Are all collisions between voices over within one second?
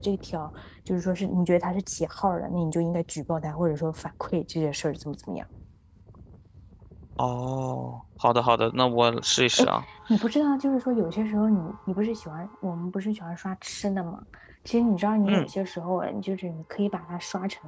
Yes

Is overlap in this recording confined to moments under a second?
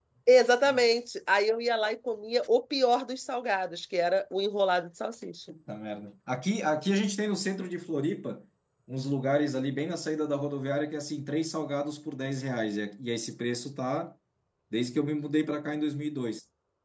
Yes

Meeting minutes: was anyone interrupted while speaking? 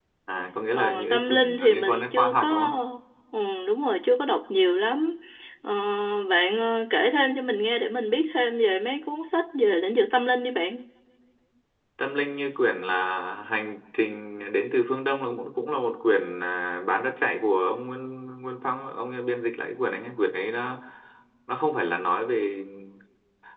Yes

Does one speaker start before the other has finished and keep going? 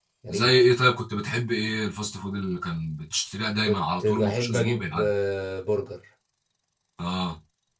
Yes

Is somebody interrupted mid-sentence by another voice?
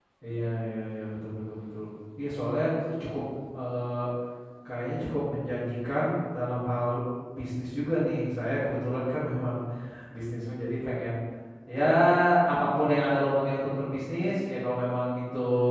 No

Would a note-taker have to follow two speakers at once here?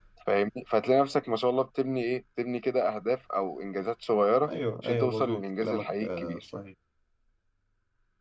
Yes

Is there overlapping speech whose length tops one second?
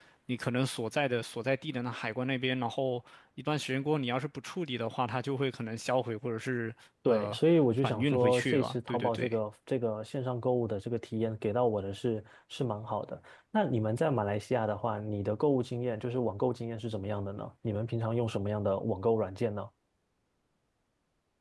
Yes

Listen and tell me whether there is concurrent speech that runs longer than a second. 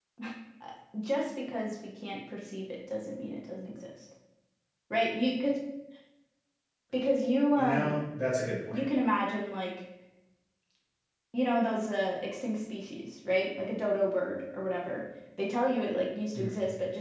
No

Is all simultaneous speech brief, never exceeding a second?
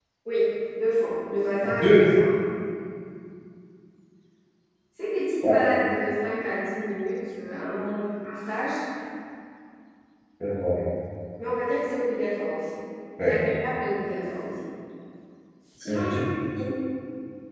Yes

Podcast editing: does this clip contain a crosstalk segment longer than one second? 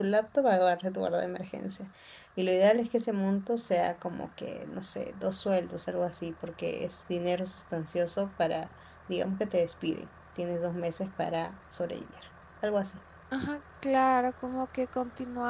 No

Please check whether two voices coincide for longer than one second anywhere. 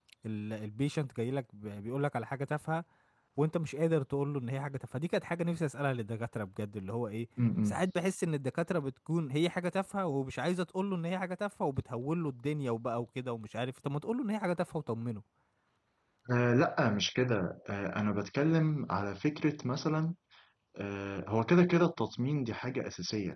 No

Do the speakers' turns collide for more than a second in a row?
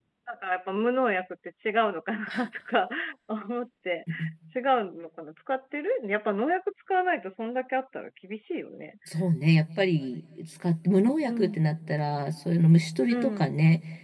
No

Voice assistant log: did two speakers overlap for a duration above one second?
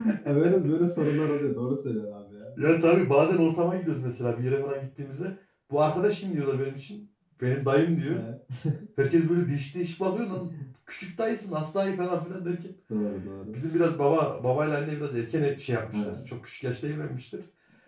No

